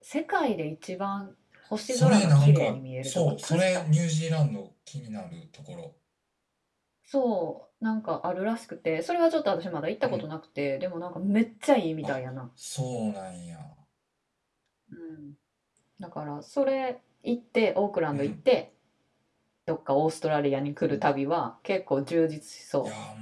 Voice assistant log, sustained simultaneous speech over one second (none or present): present